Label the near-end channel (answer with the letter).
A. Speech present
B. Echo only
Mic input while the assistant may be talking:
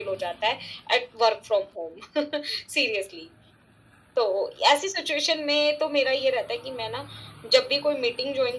B